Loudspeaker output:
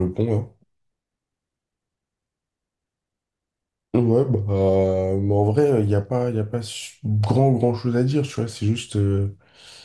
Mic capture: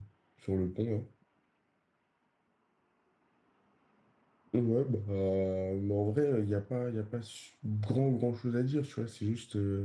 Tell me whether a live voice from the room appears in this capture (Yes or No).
No